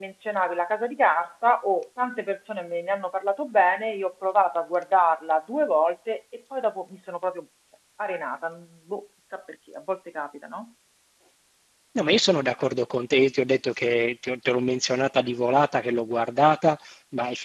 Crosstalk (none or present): none